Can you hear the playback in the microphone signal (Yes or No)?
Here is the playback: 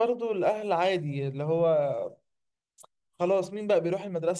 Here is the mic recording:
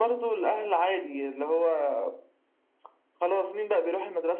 Yes